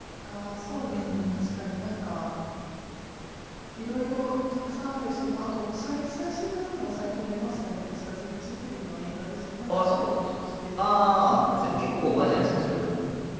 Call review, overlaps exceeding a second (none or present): present